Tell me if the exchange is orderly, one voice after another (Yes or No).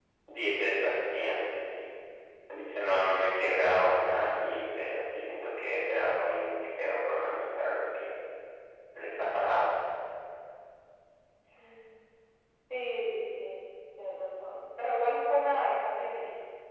Yes